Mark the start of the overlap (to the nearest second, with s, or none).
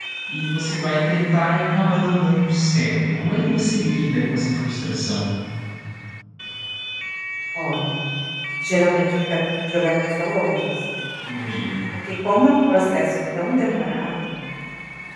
none